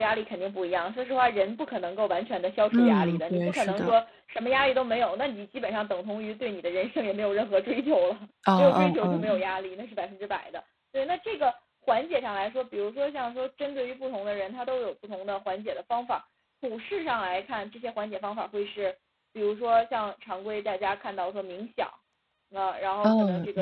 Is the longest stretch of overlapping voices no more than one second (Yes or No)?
No